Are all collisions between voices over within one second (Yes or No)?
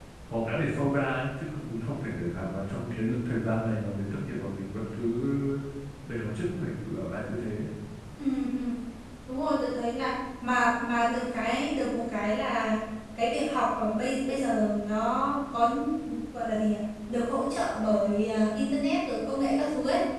Yes